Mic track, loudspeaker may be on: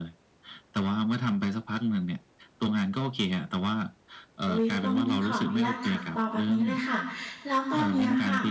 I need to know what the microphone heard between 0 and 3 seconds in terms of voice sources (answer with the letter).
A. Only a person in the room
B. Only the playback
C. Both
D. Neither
B